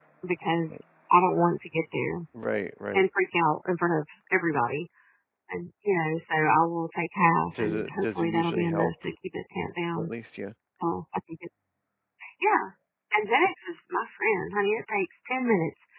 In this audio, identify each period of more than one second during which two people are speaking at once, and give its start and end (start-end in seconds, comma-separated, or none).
7.6-8.9